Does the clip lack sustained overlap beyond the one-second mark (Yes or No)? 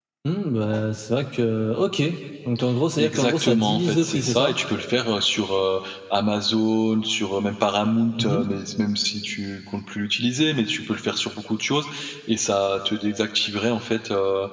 No